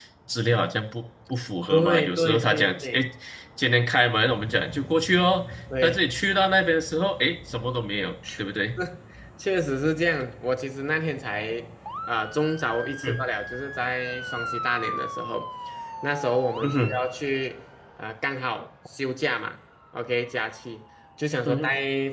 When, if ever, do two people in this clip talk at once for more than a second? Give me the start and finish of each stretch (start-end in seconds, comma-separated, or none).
1.7-3.0